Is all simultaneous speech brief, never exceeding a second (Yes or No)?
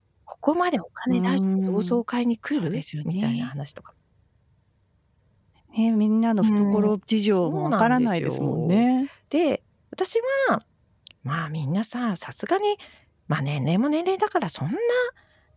No